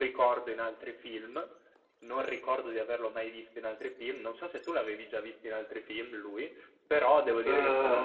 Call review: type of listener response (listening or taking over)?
listening